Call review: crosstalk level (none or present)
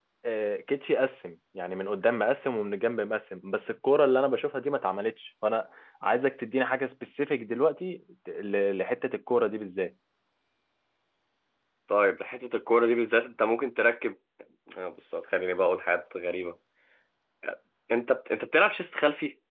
none